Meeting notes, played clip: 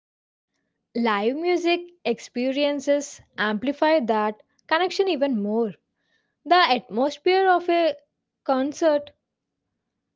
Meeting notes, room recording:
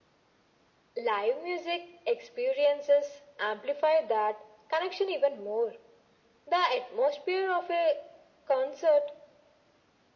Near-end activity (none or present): none